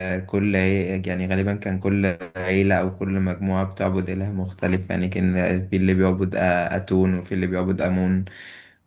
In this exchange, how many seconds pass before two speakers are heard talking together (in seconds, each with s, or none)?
none